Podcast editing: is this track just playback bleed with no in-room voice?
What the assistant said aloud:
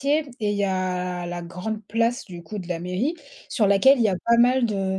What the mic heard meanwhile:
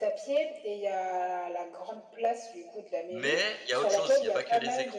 No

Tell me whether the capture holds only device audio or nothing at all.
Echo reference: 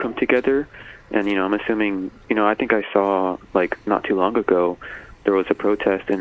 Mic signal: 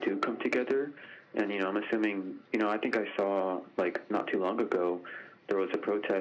Yes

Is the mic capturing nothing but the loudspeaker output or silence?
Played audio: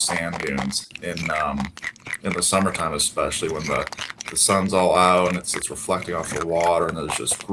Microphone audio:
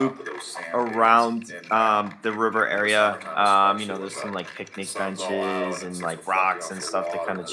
No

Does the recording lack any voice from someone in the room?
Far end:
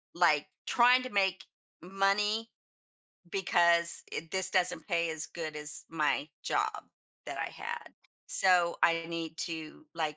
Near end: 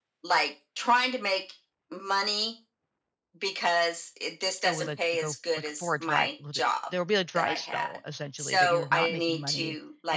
No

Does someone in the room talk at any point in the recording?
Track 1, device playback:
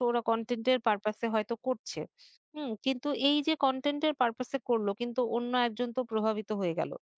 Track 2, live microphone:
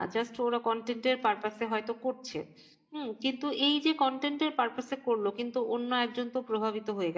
No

